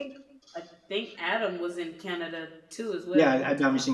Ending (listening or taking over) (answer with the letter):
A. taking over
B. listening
A